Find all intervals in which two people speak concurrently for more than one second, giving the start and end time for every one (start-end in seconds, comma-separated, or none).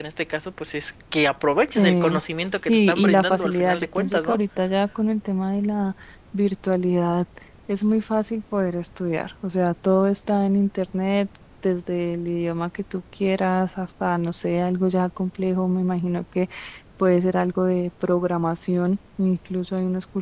2.7-4.4